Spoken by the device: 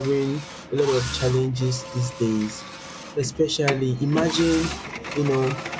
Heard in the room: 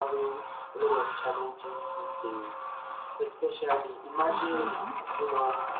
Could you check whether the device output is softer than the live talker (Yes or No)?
No